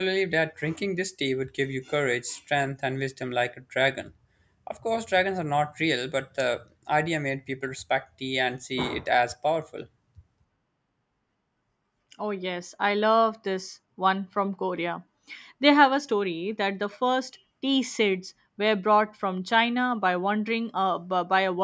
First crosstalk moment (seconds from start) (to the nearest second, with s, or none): none